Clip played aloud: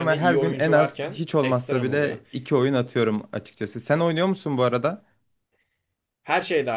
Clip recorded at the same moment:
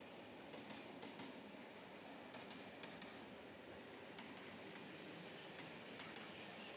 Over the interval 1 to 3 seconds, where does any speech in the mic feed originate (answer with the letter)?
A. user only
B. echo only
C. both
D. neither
D